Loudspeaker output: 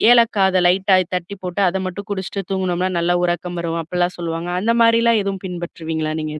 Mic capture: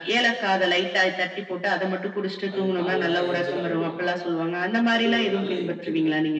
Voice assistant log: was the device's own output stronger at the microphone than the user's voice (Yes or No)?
Yes